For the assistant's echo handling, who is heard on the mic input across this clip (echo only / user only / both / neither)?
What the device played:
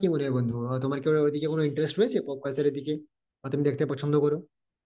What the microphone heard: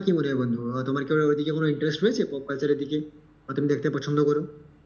echo only